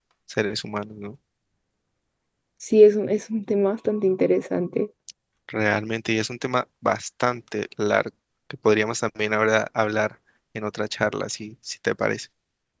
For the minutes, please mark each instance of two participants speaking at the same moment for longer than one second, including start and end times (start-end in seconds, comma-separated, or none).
none